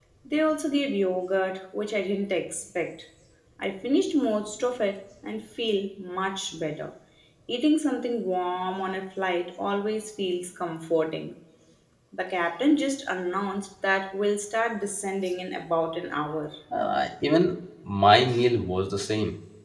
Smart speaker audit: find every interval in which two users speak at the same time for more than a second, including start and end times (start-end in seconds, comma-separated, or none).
none